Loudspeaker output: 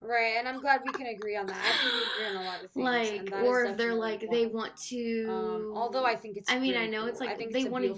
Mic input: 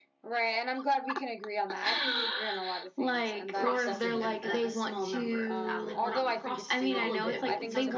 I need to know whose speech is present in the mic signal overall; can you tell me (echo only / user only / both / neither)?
both